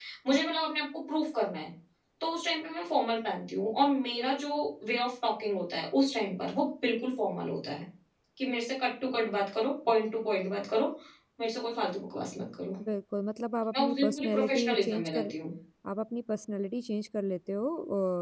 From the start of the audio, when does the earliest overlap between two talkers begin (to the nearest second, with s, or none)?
14 s